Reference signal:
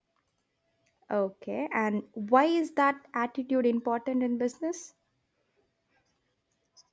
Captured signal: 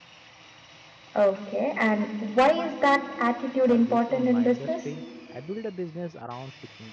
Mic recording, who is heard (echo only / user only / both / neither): both